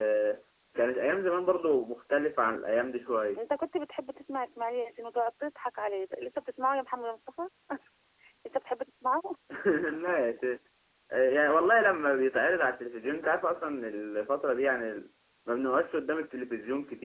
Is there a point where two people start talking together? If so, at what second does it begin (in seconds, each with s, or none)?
none